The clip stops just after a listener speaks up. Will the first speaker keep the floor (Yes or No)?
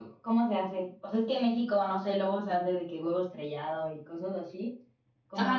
No